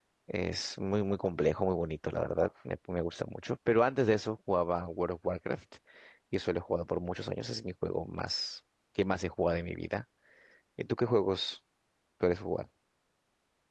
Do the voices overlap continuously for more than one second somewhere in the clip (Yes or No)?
No